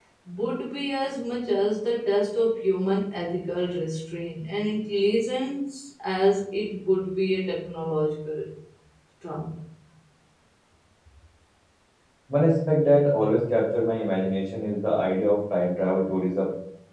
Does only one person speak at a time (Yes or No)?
Yes